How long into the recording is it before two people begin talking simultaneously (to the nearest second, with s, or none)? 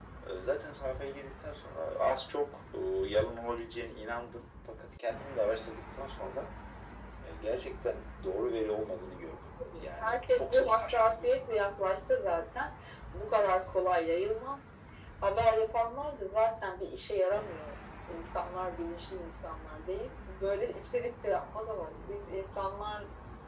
10 s